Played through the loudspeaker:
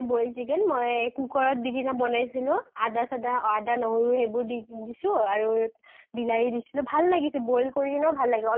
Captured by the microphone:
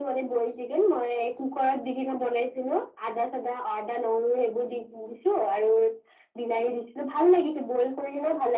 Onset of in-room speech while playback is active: none

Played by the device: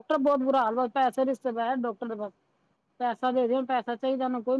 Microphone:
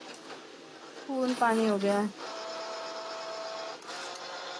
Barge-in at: 1.1 s

